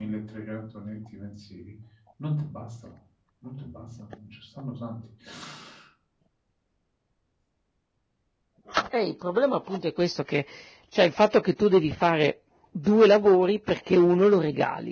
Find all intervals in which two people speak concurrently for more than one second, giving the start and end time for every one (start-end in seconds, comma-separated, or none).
none